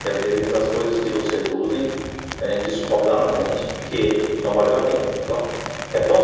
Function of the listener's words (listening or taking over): listening